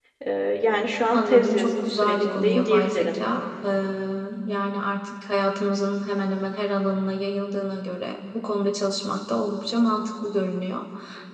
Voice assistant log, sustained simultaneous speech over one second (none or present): present